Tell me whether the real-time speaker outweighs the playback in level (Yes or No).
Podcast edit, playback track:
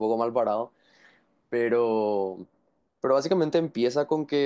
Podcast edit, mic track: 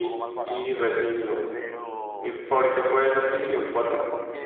Yes